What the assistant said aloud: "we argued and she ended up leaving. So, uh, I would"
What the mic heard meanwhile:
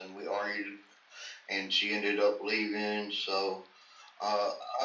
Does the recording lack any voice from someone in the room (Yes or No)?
Yes